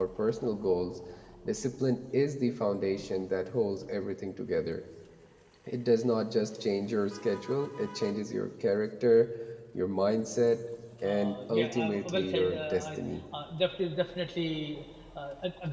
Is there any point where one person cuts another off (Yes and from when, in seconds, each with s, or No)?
Yes, from 11.0 s